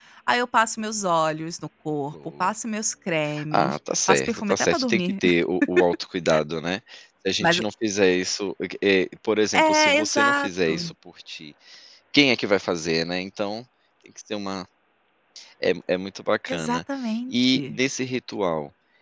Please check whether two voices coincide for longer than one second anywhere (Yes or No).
Yes